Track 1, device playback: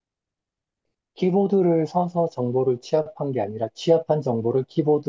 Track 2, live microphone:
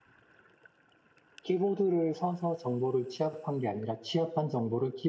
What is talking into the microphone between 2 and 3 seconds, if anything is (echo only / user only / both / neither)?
echo only